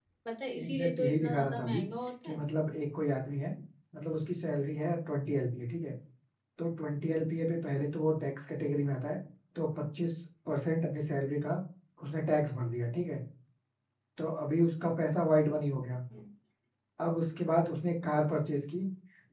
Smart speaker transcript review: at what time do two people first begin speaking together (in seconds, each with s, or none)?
0.6 s